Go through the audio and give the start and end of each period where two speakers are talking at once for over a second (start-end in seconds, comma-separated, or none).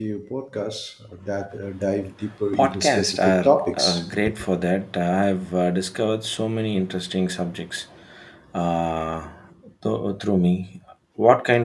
2.5-4.2